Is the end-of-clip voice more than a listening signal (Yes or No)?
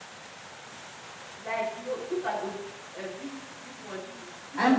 Yes